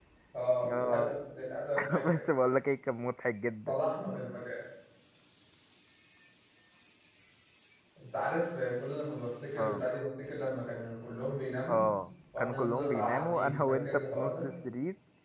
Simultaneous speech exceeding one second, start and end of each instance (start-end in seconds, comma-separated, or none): 12.4-14.4